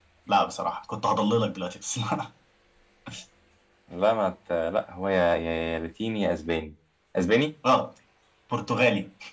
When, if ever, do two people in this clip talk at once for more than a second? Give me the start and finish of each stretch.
none

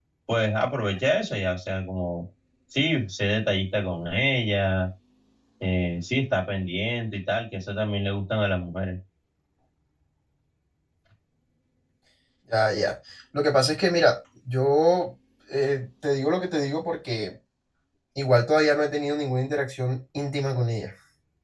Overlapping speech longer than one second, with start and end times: none

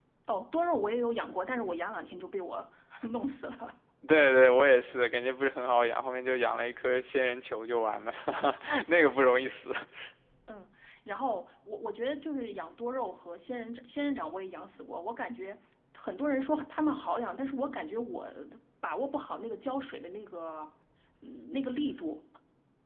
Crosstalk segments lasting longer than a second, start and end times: none

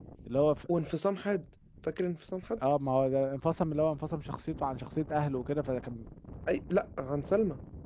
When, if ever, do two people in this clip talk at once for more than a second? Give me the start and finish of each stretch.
none

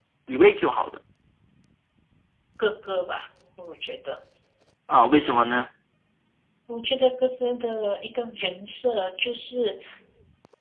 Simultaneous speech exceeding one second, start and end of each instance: none

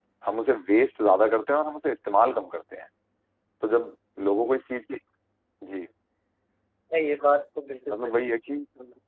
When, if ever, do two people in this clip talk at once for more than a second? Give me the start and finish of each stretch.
none

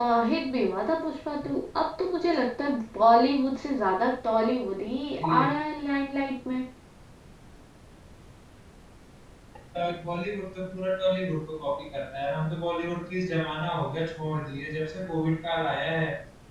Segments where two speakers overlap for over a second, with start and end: none

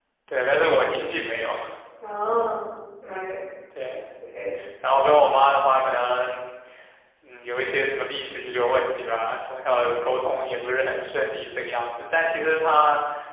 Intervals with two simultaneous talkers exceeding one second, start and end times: none

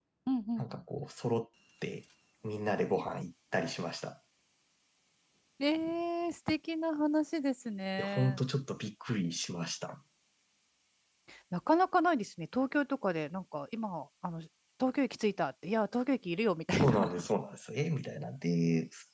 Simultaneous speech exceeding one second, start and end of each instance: none

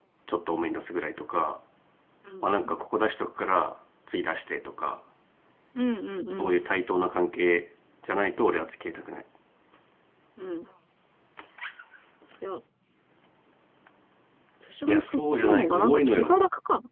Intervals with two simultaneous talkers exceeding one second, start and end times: 14.9-16.3

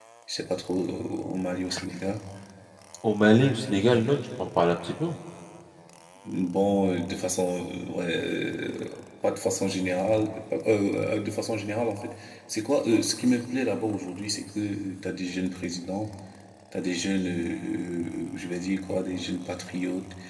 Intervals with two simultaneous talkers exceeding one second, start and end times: none

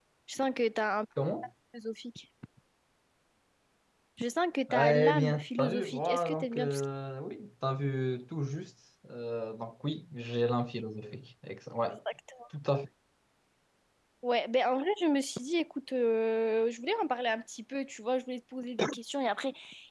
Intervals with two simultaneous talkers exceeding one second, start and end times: 4.7-6.8

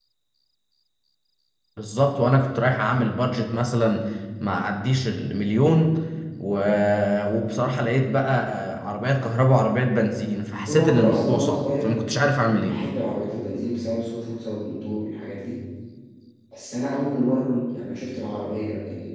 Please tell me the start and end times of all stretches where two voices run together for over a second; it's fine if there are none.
10.6-12.0

